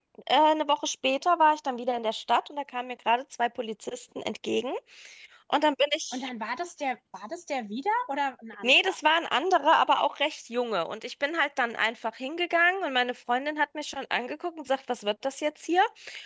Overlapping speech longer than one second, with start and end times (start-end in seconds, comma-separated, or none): none